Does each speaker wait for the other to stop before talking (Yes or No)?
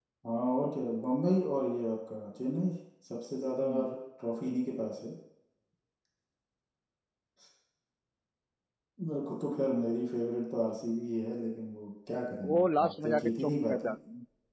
No